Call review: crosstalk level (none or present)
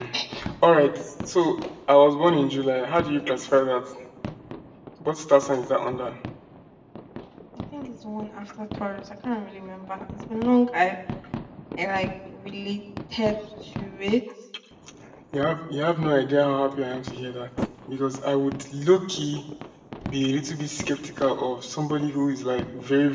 none